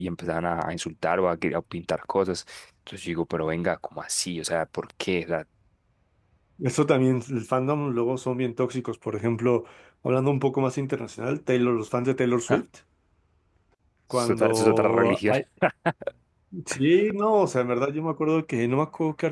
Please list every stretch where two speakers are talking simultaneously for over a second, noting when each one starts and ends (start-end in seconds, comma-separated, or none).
14.1-15.3